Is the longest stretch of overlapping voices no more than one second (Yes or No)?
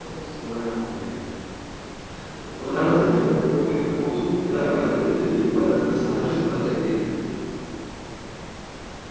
No